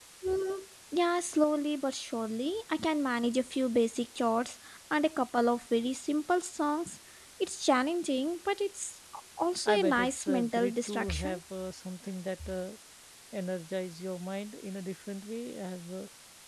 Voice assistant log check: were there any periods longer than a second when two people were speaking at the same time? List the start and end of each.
9.7-11.4

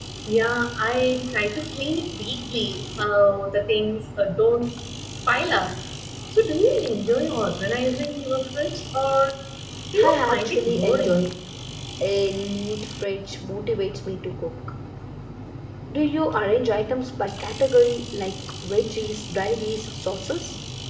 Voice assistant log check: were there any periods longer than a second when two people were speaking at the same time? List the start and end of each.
10.0-11.3

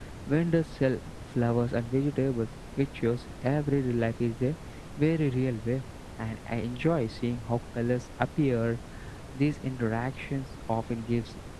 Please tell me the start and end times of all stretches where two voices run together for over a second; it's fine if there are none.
none

